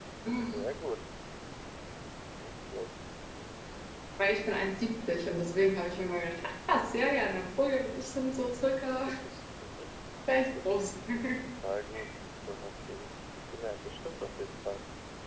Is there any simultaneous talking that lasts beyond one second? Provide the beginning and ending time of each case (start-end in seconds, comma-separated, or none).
none